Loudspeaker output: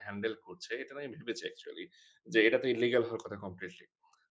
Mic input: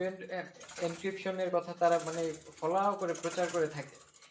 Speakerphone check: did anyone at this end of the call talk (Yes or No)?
Yes